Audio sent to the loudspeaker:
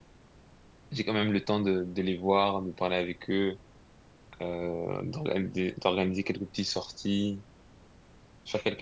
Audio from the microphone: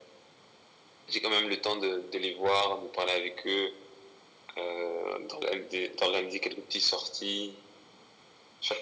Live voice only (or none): none